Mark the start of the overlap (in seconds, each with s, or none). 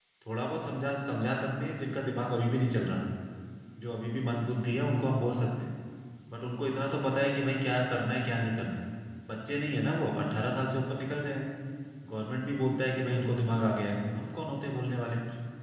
none